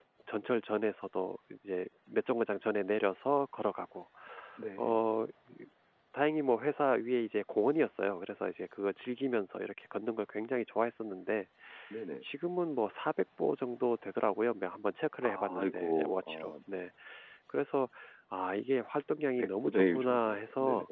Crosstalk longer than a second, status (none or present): present